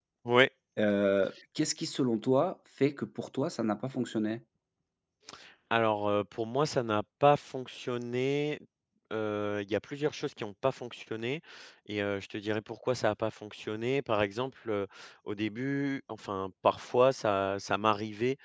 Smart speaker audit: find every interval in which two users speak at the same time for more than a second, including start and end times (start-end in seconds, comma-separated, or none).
none